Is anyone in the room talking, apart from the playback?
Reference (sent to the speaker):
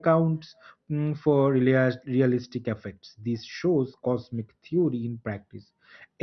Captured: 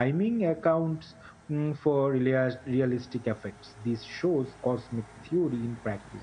No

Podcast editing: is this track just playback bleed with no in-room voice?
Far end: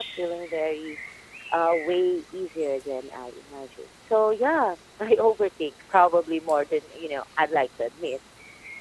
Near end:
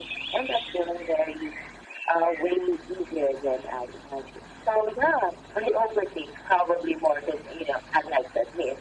Yes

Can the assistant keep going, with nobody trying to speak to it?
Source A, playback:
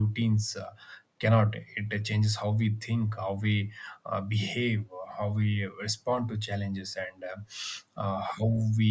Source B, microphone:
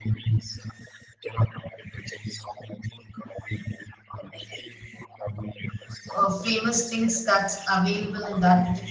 No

